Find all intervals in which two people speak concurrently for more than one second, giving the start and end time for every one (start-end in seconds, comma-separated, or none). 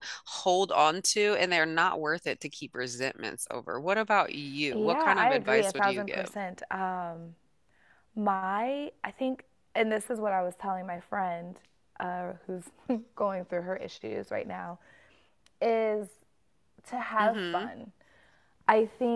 4.7-6.3